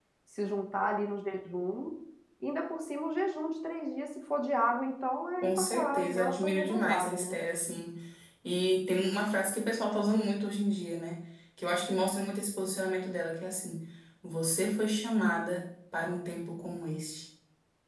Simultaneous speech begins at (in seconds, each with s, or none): 5.4 s